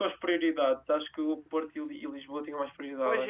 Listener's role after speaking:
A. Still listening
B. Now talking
B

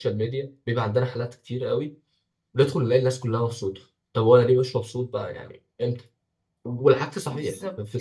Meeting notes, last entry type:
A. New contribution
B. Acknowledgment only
B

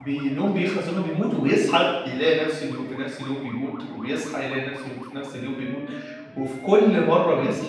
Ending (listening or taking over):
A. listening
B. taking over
A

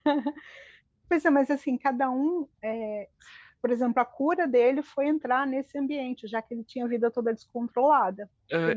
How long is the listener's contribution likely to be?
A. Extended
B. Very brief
A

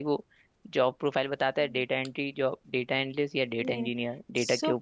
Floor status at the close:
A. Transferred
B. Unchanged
A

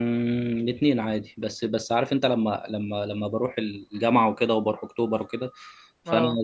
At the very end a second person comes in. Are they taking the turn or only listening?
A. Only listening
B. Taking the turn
A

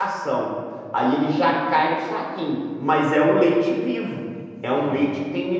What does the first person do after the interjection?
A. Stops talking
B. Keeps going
B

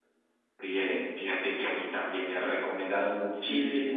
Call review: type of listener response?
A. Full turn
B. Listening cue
A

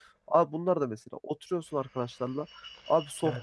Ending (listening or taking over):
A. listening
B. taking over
A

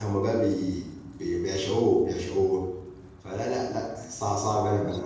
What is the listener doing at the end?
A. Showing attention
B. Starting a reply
A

